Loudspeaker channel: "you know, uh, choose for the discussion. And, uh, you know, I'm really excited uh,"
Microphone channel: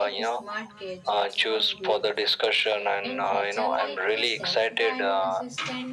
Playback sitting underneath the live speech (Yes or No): No